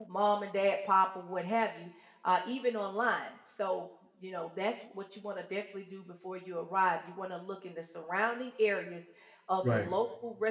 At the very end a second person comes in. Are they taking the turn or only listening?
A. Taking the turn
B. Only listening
B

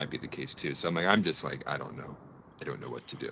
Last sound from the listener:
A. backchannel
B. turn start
B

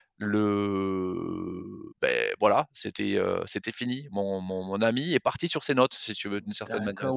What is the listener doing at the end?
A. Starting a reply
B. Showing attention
A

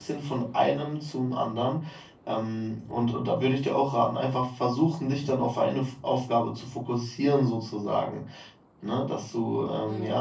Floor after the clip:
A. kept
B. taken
A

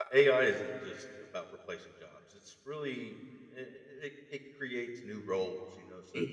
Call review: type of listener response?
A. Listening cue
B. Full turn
B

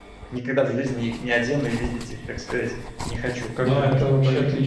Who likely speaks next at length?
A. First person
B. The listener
B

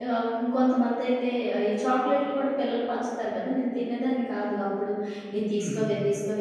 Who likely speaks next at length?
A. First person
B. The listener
A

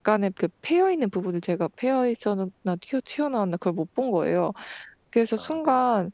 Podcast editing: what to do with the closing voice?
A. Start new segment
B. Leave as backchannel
B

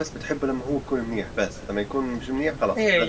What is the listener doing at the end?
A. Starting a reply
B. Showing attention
A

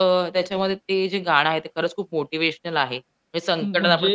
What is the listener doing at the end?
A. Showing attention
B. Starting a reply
A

